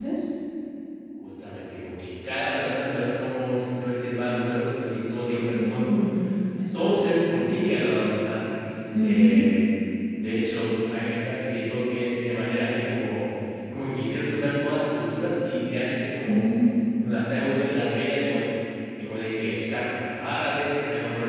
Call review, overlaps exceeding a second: none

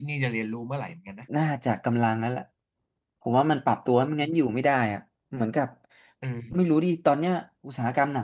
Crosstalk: none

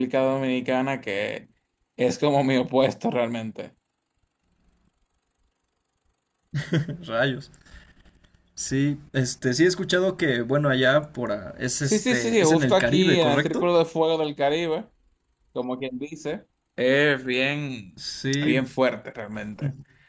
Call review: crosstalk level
present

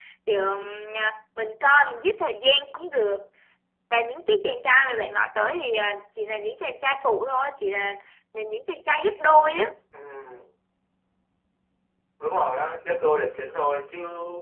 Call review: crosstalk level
none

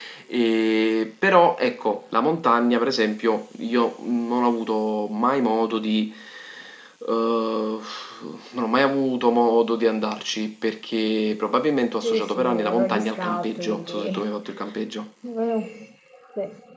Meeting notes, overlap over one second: present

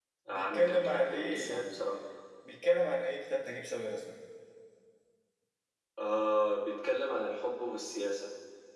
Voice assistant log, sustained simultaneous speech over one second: present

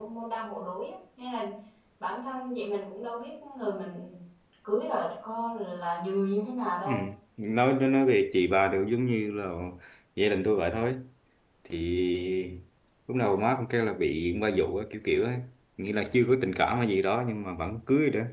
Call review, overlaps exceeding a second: none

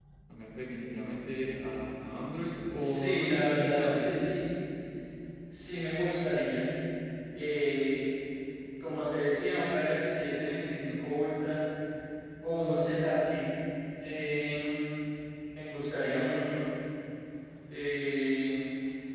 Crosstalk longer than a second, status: present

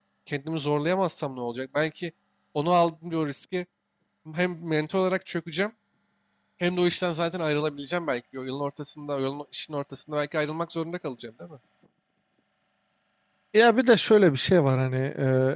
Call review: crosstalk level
none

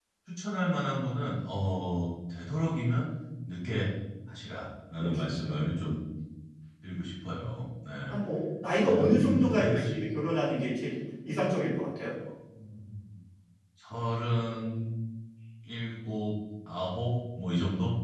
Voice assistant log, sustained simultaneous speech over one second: present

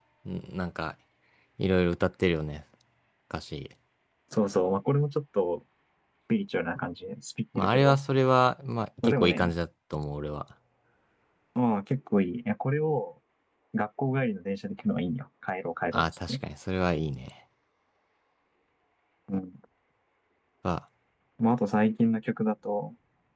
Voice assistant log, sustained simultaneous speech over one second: none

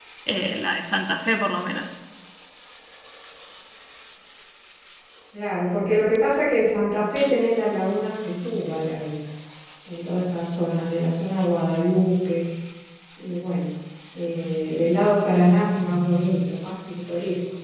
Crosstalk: none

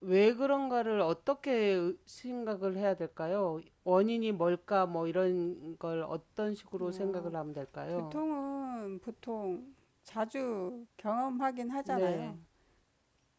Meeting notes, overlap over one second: none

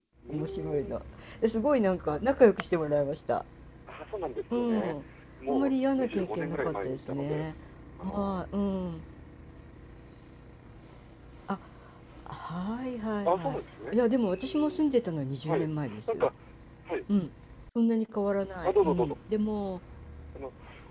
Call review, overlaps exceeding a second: present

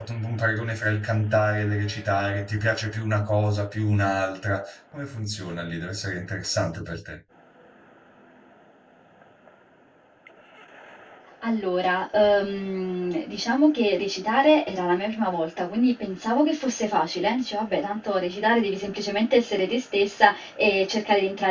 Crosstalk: none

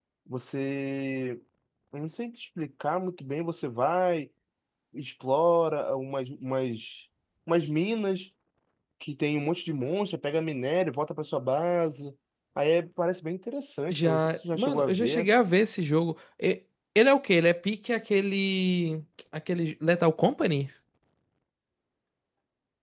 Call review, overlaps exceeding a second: present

